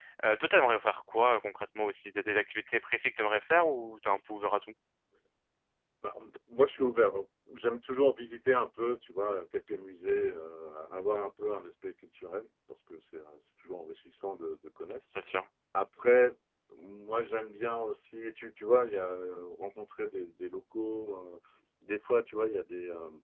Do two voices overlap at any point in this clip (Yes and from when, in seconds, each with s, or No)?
No